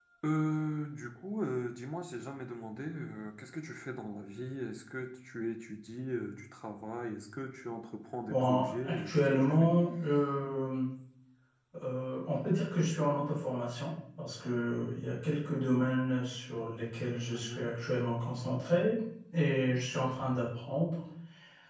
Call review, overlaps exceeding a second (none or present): present